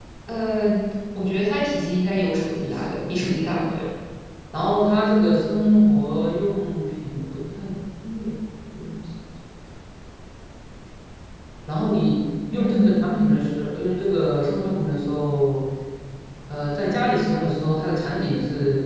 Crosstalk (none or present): present